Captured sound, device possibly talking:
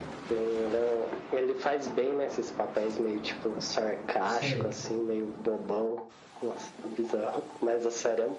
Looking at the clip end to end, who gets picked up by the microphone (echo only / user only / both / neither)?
both